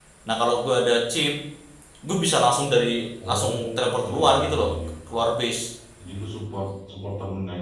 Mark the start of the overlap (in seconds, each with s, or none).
3.2 s